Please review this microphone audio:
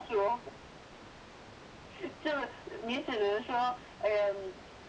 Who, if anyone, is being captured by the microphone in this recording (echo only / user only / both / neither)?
echo only